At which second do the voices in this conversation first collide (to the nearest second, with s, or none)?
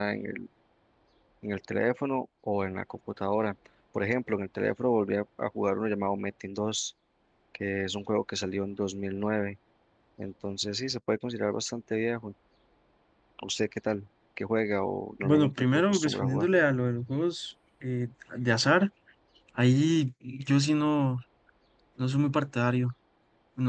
15 s